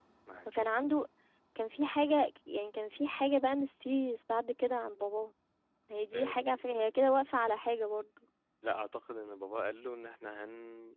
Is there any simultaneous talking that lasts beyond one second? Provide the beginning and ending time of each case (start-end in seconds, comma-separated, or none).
none